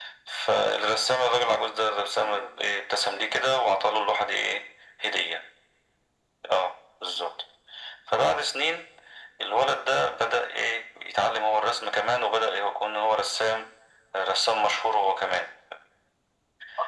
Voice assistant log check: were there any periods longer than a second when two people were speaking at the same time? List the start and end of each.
2.0-3.3

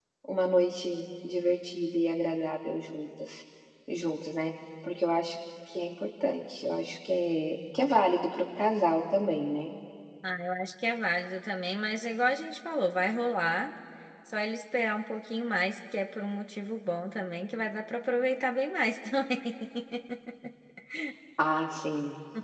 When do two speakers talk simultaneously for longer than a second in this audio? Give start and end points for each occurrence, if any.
none

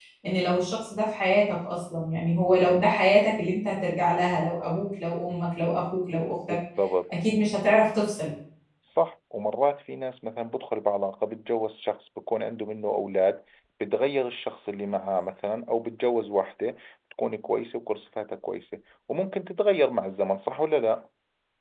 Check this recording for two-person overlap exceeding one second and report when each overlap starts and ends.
none

